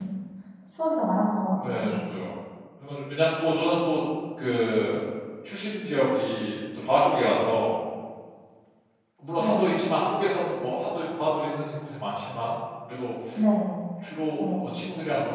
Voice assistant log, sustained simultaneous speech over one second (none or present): none